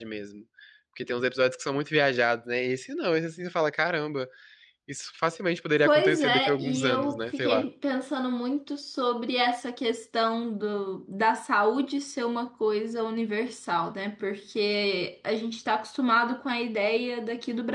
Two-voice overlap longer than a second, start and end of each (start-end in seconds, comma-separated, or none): 5.8-7.6